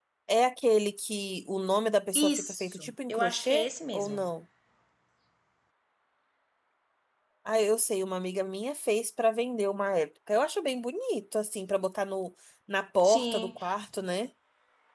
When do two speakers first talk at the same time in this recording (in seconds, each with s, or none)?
2.1 s